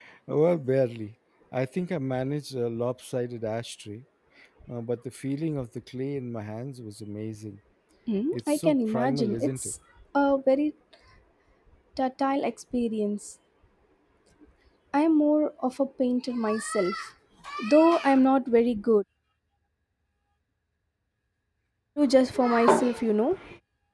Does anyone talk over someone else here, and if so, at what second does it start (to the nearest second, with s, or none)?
8 s